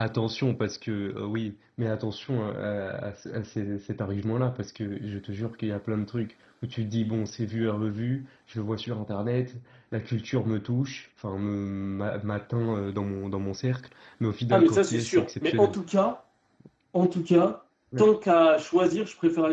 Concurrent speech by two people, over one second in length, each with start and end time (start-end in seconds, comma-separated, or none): 14.5-15.8